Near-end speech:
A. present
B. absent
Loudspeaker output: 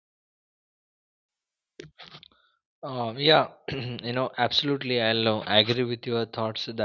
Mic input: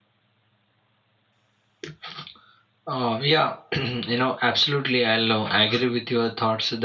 B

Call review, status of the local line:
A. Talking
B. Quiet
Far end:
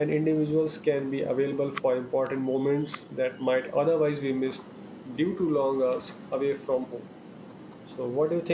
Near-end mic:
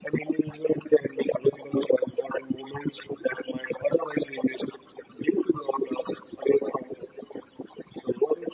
B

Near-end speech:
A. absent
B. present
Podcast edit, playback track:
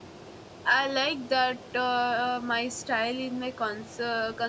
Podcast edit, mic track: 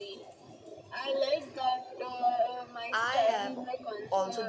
B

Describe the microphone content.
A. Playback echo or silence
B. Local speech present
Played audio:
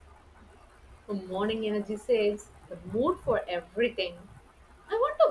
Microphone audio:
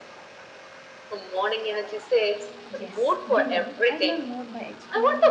B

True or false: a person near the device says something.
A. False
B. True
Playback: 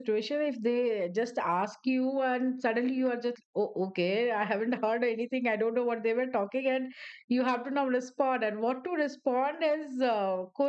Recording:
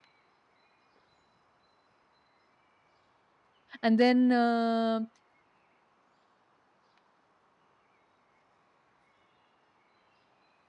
B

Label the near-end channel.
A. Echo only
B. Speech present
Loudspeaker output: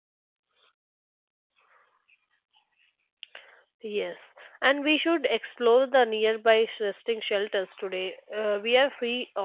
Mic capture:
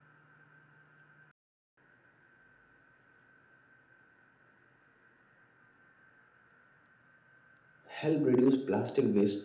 B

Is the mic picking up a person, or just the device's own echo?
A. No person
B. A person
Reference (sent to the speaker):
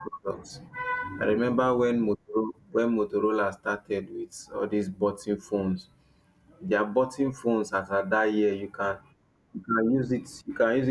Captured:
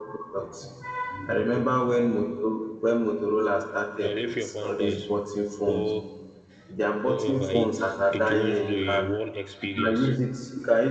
B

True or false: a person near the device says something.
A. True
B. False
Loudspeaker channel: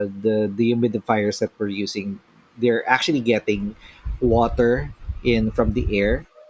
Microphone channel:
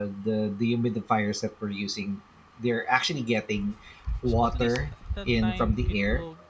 A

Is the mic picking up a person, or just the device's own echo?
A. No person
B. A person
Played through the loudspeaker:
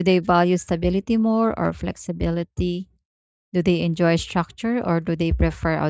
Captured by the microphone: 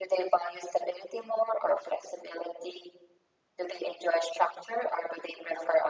A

